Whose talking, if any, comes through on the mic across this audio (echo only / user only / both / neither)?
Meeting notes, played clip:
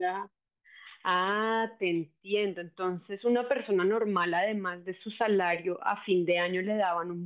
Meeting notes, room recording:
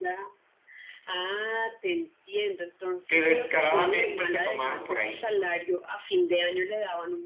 both